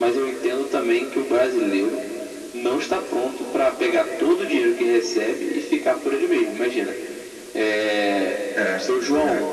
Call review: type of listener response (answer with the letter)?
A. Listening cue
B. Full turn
A